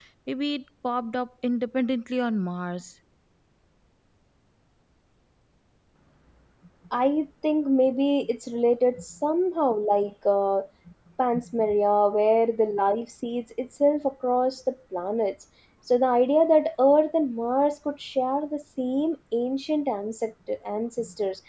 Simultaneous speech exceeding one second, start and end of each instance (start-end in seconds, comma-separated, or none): none